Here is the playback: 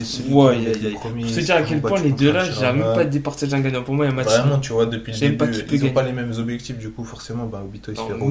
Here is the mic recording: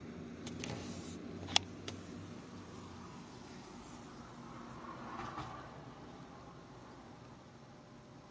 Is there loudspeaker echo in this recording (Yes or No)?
No